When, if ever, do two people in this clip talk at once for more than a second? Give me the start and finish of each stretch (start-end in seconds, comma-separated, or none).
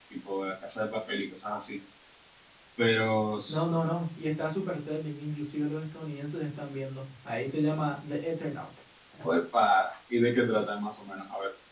none